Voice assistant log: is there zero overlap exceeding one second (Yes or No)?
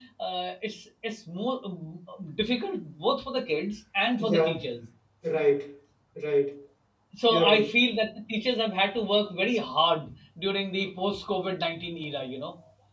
Yes